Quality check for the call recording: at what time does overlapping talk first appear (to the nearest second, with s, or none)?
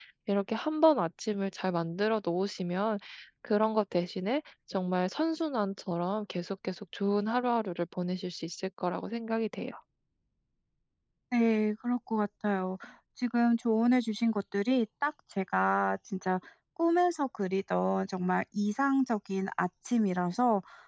none